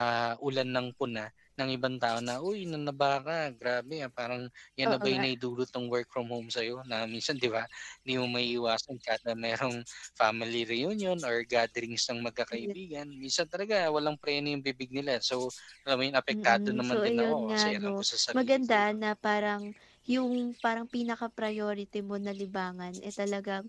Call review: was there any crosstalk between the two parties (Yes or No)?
Yes